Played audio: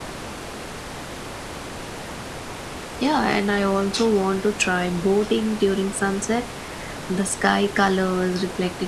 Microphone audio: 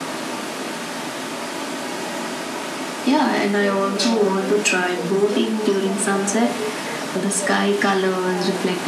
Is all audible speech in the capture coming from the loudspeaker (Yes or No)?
No